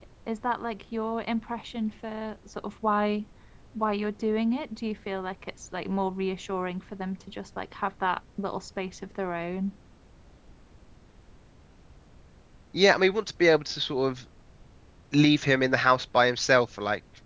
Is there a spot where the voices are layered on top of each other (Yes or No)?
No